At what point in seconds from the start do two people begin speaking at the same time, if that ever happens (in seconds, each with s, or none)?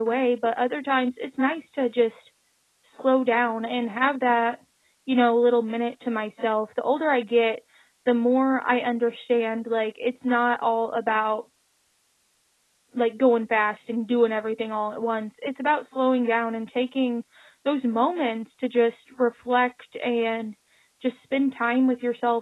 none